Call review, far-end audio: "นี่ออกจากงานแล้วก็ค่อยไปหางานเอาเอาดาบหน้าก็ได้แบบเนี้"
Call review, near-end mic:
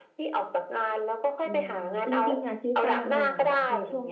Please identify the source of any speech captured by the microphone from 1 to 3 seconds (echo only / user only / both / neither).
both